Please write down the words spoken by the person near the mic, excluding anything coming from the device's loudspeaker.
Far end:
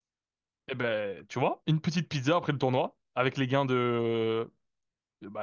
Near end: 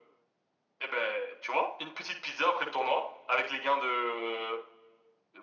none

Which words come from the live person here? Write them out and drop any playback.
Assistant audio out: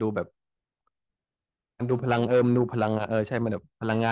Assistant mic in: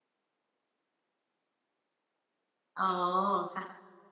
อ๋อค่ะ

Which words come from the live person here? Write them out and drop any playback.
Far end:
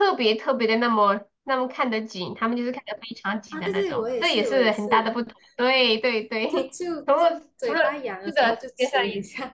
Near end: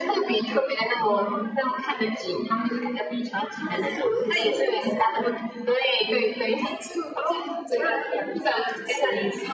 none

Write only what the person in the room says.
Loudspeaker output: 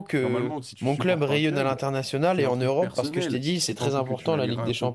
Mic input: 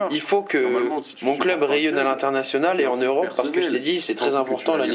none

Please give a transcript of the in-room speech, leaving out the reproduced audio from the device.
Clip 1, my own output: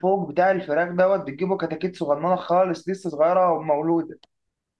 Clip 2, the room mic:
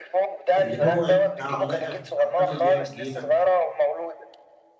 اللي هو يعني اعلاف اعلاف اللي هي تجيلك

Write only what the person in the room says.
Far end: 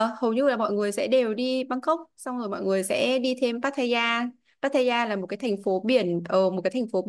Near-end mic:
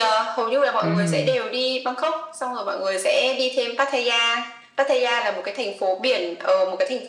ừ

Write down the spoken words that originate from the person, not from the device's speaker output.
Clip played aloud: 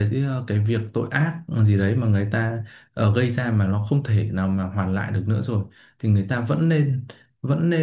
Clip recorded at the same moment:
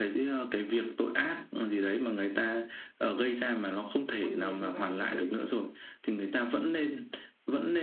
quay về thời gian lúc đấy

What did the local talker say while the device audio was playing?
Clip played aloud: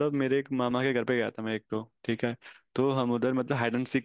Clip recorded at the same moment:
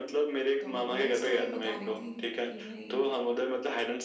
तो वही स्टोरी बता रही थी कि भाई

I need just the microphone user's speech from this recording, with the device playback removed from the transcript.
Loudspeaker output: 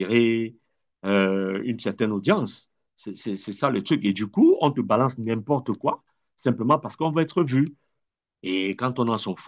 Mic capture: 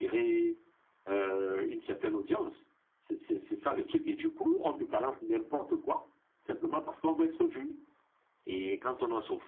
none

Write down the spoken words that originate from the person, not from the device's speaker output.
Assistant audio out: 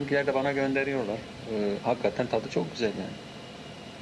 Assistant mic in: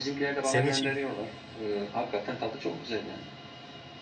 senin şey-

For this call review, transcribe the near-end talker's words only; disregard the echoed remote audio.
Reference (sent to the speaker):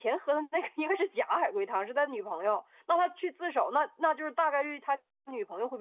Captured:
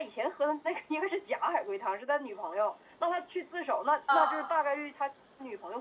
汤哦，

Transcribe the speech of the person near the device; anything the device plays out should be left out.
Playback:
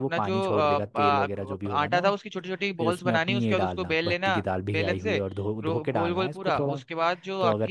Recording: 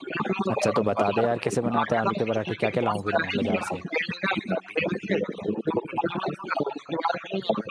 अच्छा तो बता दे यार कैसे बनाते हैं आलू के पराठे क्या क्या लाऊं फिर मैं बाजार से

